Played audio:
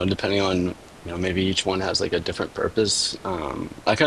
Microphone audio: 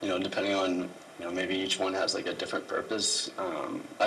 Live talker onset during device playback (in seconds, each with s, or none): none